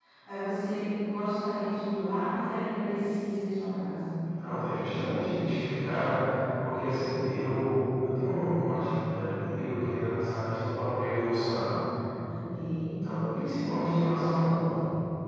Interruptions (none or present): none